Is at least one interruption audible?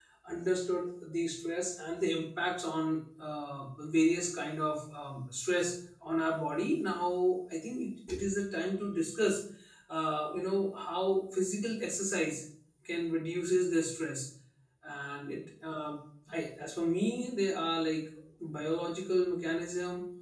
No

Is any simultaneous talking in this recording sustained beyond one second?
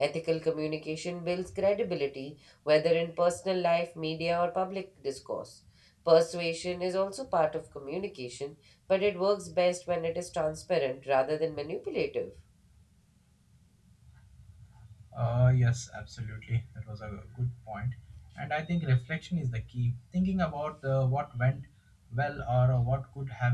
No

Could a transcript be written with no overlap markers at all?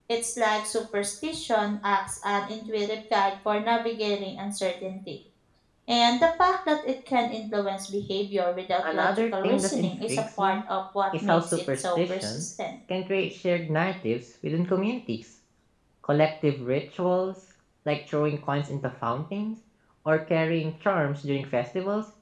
No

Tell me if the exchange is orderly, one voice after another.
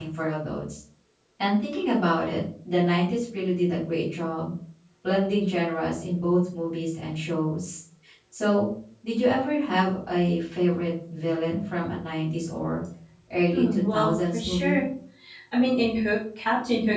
No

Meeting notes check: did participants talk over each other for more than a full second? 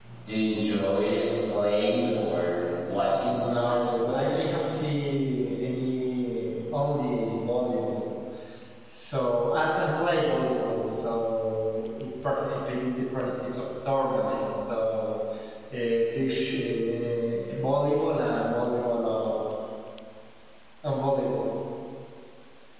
Yes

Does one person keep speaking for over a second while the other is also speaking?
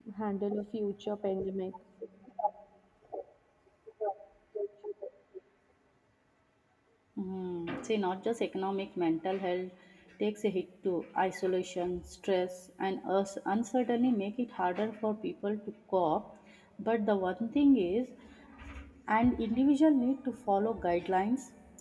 No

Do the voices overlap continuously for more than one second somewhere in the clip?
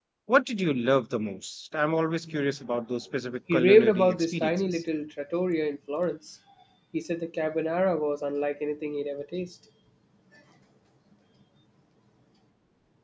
Yes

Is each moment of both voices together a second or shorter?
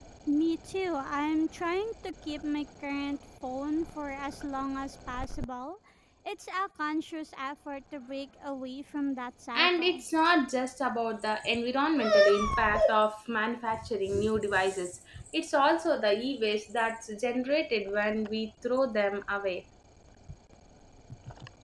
Yes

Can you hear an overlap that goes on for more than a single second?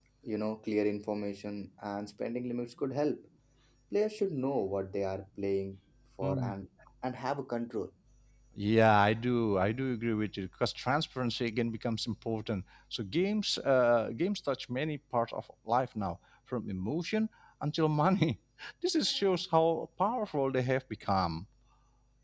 No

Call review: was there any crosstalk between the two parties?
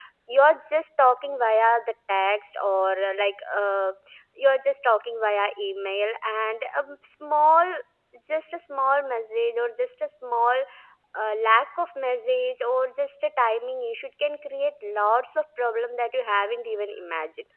No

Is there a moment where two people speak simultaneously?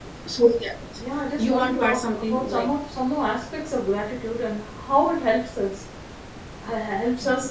Yes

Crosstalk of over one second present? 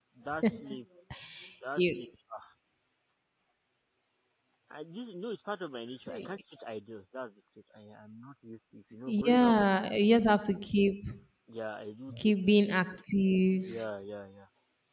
No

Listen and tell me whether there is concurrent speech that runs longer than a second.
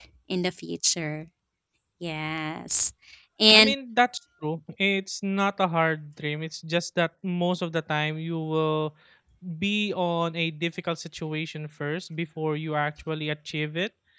No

